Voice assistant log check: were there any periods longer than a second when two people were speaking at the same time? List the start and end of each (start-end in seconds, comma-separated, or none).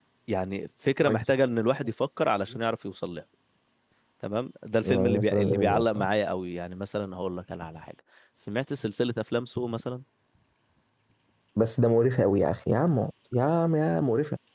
4.8-6.1